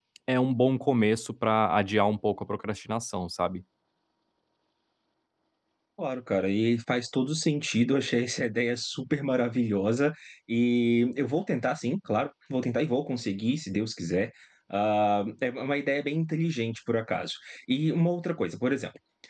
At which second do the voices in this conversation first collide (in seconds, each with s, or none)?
none